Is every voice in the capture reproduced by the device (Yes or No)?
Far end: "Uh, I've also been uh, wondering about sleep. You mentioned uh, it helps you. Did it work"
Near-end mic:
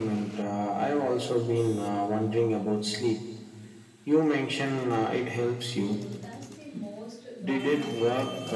No